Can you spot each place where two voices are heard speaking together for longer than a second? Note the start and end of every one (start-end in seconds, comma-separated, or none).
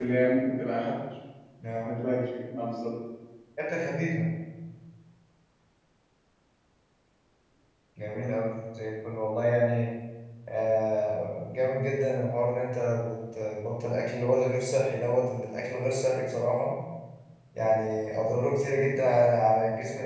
none